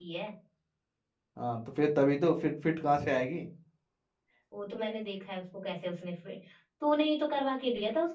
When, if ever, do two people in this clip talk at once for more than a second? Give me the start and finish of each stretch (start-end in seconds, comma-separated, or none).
none